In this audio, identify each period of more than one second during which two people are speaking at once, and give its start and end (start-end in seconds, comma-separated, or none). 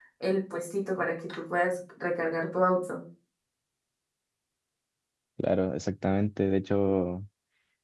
none